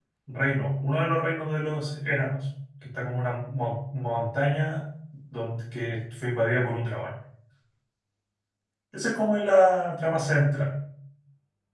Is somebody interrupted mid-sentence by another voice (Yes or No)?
No